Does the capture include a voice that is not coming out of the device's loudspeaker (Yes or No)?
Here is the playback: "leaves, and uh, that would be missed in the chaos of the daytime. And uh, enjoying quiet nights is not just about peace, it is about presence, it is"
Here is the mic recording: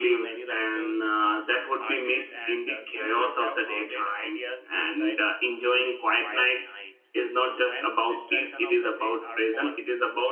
Yes